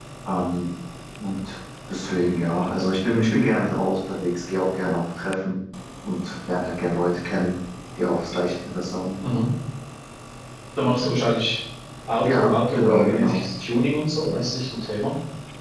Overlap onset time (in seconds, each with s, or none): 12.2 s